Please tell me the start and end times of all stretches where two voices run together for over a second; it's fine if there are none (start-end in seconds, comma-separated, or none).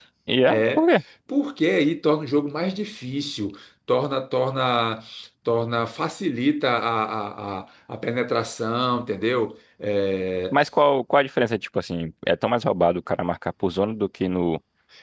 none